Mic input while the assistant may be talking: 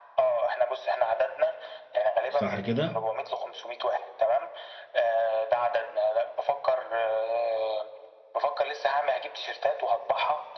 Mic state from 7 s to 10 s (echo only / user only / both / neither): echo only